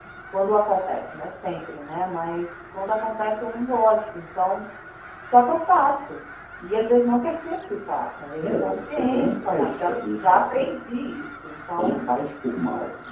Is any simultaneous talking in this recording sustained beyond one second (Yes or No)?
Yes